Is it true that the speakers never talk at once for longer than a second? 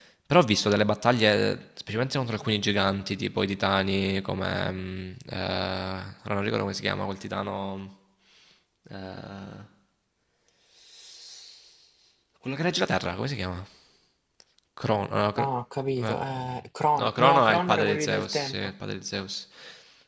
No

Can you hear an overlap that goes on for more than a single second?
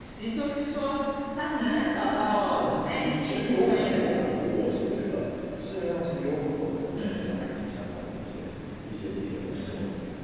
Yes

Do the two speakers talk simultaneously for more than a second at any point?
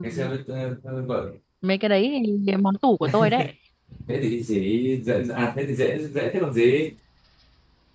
No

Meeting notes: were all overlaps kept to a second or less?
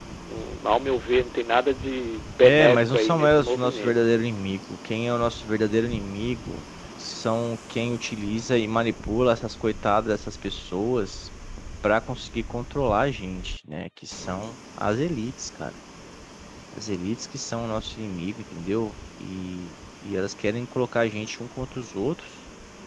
No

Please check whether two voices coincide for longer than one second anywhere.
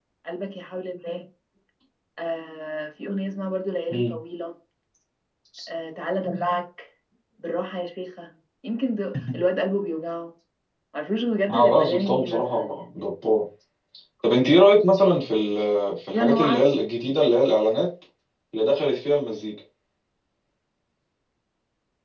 Yes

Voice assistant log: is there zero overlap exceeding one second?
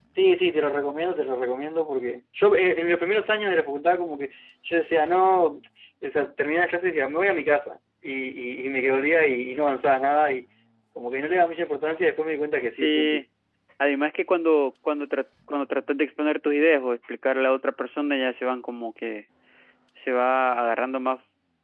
Yes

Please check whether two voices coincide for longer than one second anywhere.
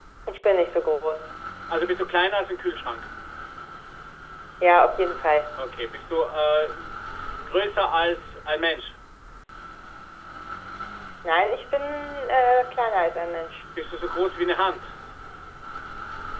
No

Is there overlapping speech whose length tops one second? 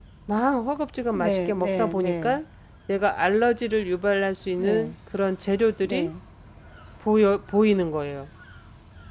Yes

